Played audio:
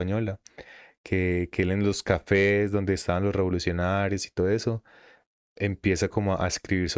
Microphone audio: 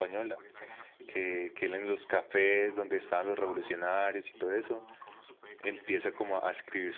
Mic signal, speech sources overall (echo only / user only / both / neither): both